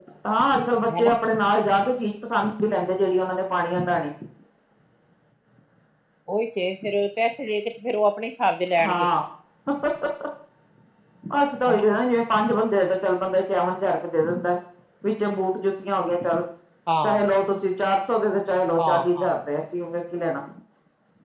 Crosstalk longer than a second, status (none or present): none